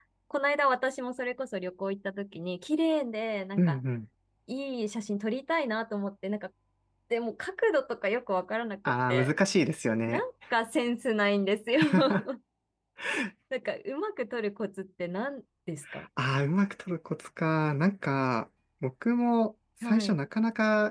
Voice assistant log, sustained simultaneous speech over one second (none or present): none